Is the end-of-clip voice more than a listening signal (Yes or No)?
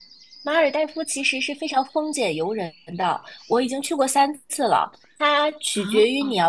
No